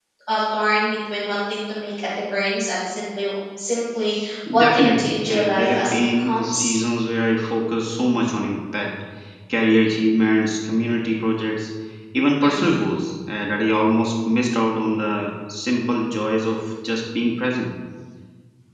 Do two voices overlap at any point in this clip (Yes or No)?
Yes